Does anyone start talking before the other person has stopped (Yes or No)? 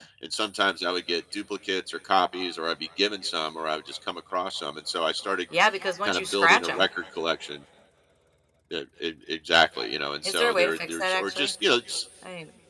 Yes